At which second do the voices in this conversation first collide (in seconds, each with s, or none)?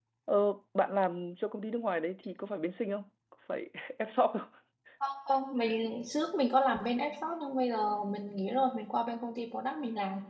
none